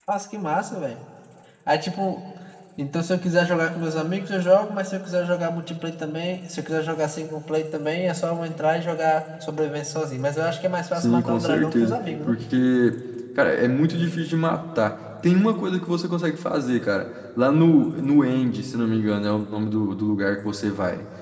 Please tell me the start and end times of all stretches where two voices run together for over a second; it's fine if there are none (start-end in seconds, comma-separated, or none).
10.9-12.3